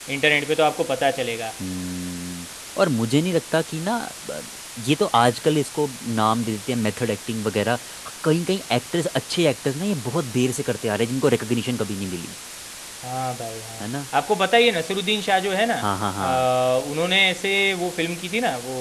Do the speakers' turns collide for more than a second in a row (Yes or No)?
No